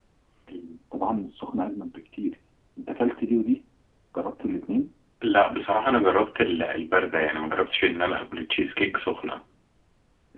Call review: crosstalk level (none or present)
none